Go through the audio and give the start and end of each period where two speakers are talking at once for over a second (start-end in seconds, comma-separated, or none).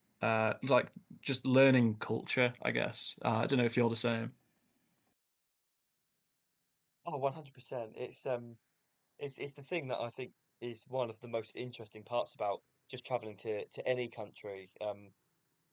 none